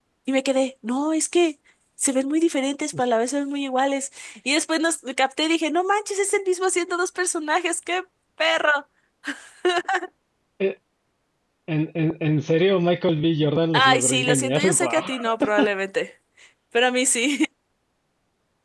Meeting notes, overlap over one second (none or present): present